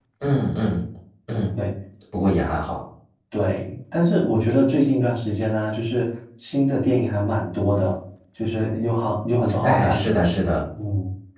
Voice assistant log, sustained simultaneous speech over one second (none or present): none